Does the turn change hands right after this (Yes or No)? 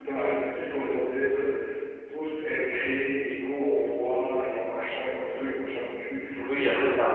Yes